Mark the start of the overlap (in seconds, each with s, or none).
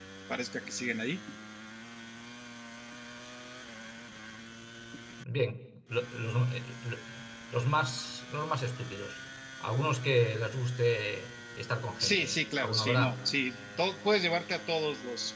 12.0 s